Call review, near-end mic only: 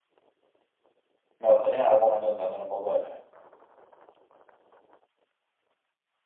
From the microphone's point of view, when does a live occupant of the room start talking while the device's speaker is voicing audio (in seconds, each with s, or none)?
1.4 s